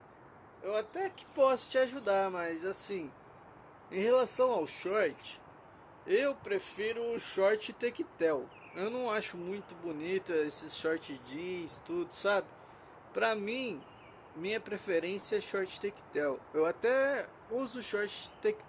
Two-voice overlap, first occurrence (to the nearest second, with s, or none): none